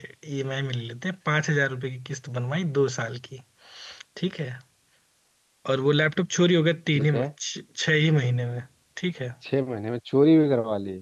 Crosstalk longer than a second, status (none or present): none